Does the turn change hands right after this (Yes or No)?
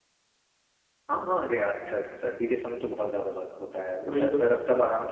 No